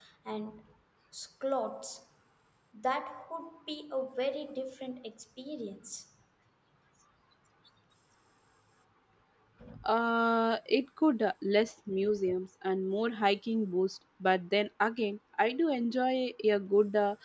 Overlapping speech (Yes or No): No